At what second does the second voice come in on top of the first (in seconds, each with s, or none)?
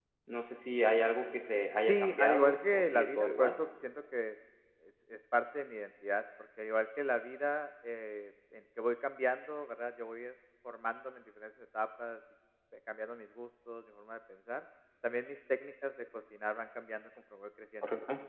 1.8 s